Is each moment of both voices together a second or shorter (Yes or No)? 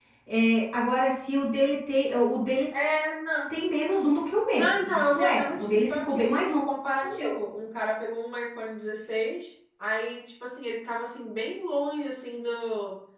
No